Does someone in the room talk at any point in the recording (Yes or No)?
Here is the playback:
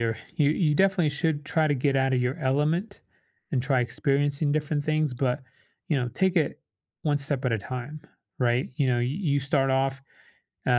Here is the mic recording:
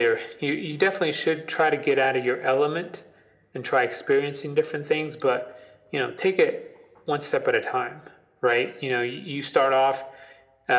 No